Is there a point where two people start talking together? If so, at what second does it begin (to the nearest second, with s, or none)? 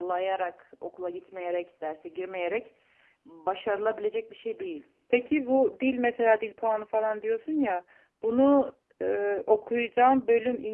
none